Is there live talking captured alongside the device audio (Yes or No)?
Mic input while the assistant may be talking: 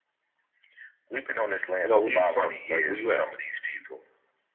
Yes